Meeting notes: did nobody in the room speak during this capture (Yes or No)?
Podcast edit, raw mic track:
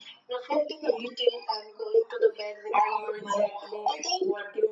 Yes